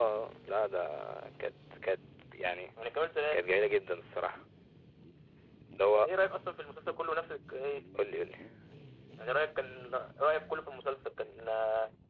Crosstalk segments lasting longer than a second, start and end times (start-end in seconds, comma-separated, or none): none